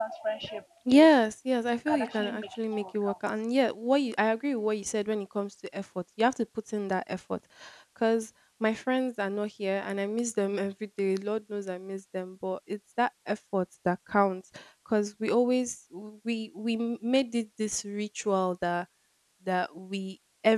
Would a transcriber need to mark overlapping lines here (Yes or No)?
Yes